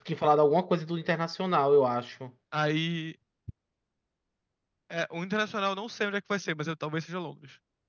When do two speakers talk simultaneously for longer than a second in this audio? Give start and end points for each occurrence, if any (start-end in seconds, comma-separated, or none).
none